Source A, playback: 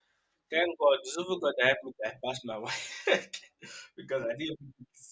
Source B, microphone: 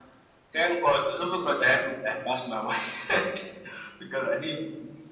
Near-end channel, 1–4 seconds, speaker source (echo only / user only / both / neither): echo only